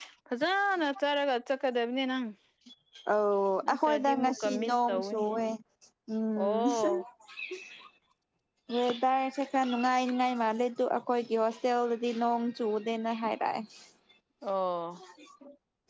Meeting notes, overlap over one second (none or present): present